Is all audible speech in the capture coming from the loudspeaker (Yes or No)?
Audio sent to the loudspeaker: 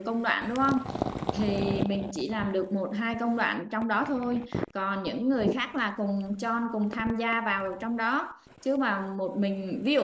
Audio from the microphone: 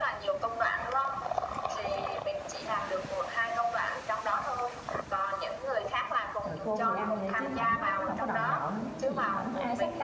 No